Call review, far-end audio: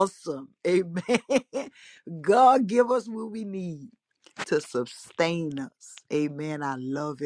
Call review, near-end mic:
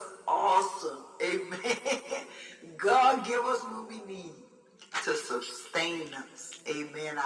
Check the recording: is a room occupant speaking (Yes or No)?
No